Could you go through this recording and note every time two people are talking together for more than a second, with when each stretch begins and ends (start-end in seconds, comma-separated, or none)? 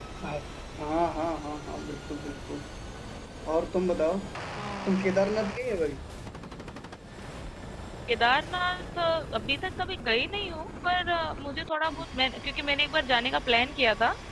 none